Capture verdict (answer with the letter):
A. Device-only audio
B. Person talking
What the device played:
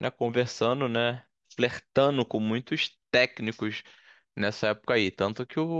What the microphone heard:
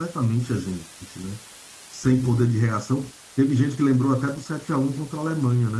B